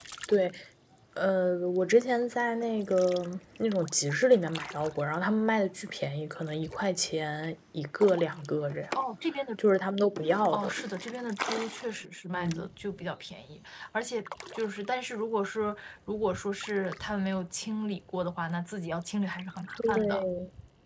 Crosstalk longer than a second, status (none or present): none